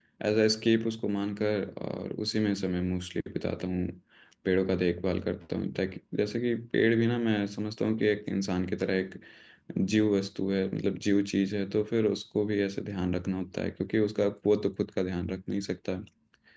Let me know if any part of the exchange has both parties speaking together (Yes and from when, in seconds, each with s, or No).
No